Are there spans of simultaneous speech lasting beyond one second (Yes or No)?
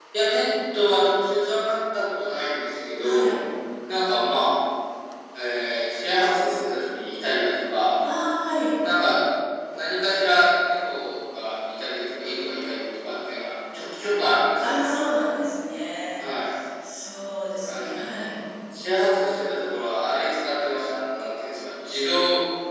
No